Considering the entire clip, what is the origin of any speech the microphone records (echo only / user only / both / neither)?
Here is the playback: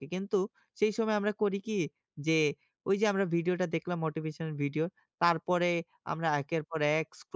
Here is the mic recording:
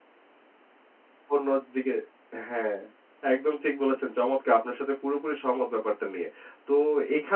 user only